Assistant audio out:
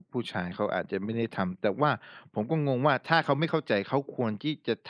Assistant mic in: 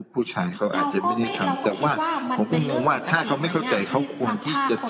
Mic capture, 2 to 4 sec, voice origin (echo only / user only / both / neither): both